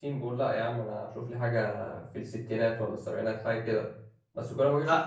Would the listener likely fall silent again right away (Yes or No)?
Yes